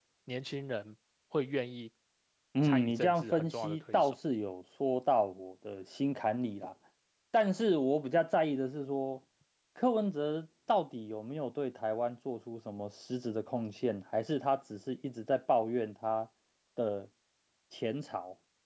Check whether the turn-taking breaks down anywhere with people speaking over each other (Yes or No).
Yes